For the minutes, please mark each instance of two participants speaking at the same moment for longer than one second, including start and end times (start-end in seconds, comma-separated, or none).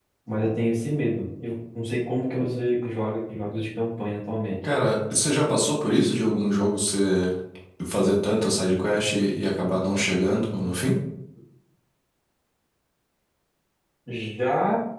none